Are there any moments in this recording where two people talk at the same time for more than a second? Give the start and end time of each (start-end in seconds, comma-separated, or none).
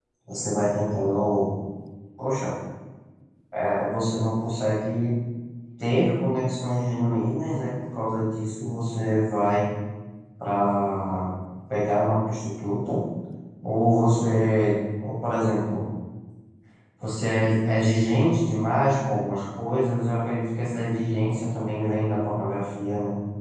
none